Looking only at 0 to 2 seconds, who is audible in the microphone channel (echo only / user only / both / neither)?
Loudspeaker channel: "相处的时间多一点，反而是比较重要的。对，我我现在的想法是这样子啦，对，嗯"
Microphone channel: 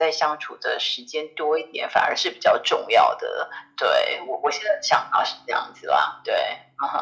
echo only